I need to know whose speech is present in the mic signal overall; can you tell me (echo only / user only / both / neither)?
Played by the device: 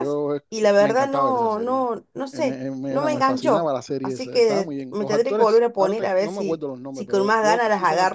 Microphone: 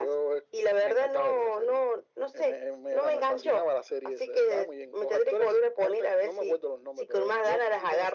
echo only